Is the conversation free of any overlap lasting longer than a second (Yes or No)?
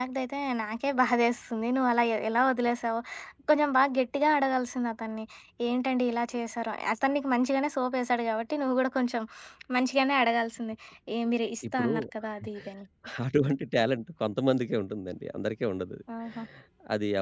Yes